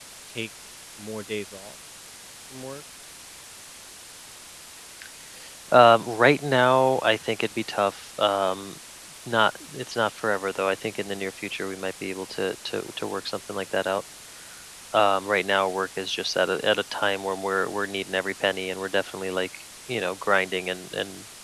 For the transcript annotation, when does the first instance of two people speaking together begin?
none

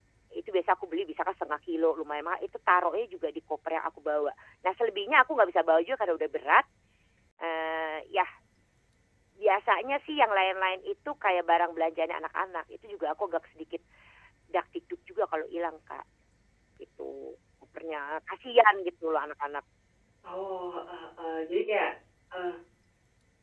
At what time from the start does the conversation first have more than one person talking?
none

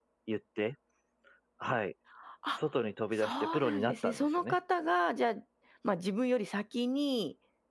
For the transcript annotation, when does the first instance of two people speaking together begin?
3 s

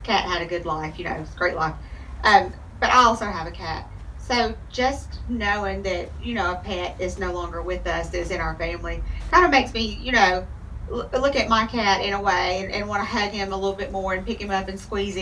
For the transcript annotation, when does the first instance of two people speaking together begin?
none

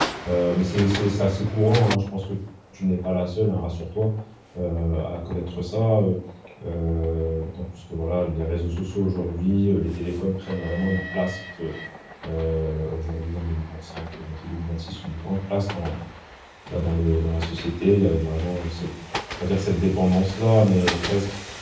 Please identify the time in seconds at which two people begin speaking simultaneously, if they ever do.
none

